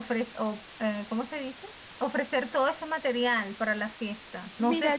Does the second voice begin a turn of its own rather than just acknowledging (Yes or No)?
Yes